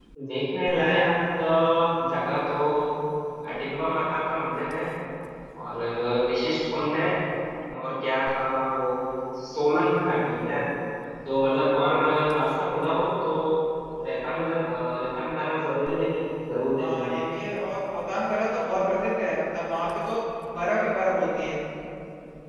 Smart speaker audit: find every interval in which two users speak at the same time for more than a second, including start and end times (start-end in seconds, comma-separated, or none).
none